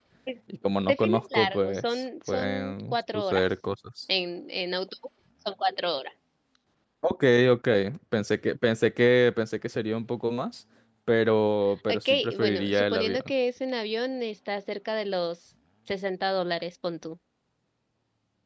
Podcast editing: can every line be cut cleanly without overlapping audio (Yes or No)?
No